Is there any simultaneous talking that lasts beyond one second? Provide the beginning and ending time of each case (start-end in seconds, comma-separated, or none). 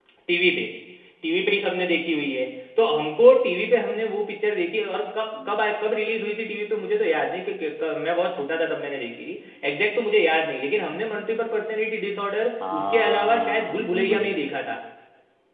12.7-14.6